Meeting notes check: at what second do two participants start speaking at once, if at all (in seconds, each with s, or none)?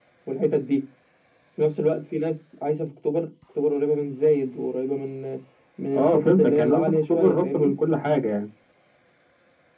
5.9 s